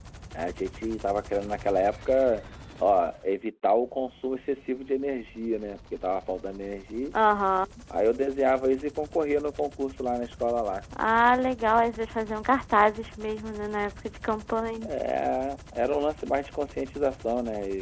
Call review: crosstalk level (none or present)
none